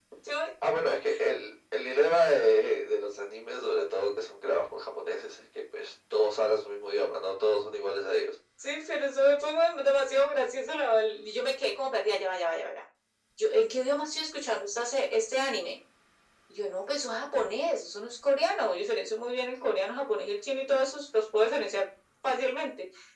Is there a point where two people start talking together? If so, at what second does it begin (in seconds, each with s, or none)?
none